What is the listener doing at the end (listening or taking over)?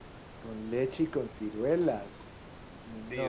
taking over